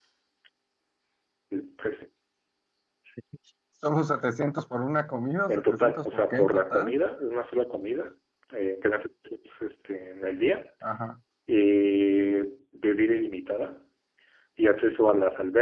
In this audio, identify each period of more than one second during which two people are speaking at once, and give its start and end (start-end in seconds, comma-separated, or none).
5.5-6.9